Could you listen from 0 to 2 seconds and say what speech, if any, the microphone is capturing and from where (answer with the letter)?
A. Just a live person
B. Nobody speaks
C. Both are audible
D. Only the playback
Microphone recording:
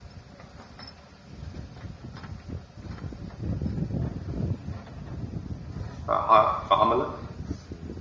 B